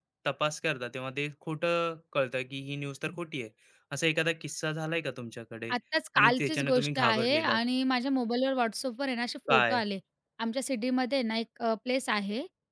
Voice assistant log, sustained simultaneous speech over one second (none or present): present